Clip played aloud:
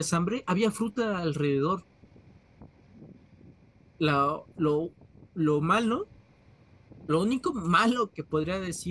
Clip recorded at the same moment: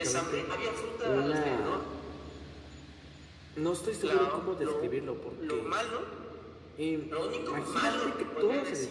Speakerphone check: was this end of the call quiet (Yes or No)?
No